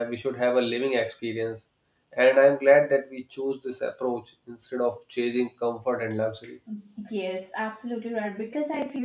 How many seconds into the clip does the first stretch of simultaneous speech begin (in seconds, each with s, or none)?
none